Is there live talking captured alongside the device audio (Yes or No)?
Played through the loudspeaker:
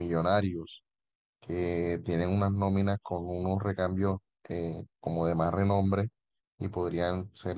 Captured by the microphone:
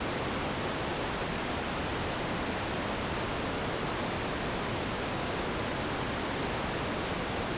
No